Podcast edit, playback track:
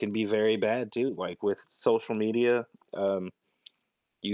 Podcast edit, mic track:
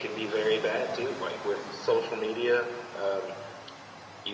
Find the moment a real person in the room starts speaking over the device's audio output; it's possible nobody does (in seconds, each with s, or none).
none